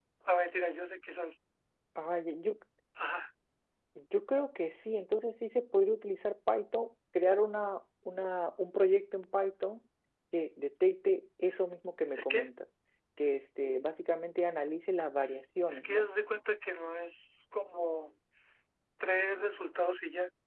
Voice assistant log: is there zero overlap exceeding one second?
Yes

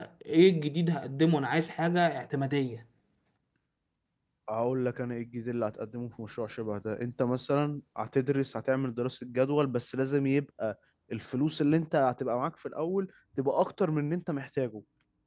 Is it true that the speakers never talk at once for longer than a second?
Yes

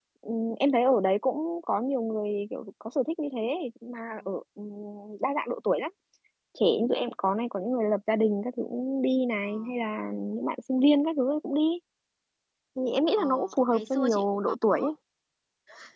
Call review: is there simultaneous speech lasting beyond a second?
Yes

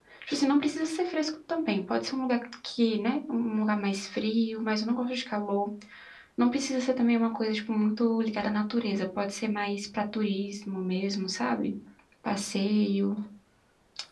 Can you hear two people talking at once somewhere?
No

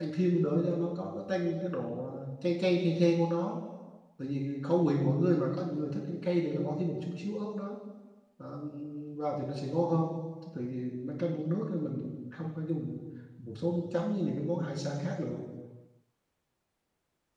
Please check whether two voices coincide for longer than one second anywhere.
No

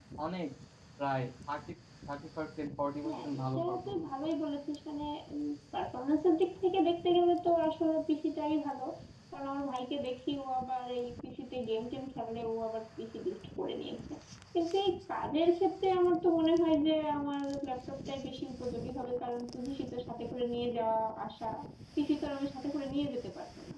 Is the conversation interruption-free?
No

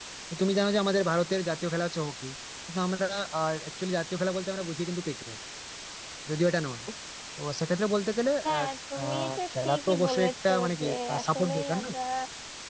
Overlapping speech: Yes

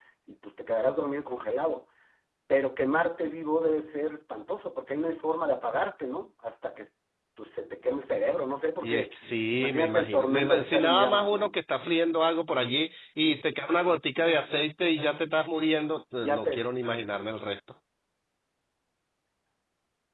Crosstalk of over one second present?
Yes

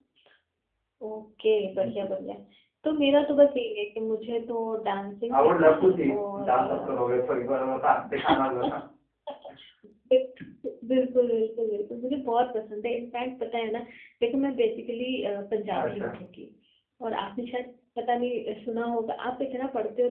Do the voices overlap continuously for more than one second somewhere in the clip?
Yes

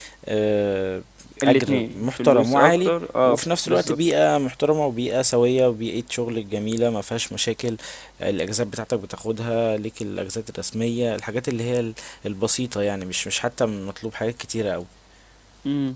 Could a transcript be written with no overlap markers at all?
No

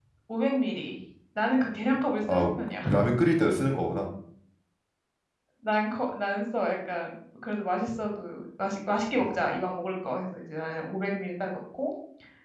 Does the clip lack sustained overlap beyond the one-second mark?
Yes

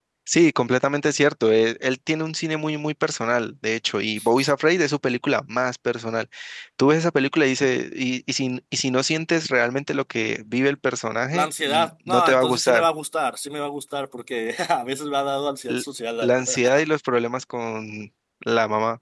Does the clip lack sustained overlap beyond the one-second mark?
No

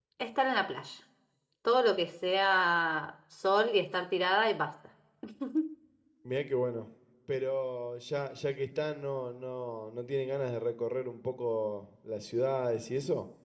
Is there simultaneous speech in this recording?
No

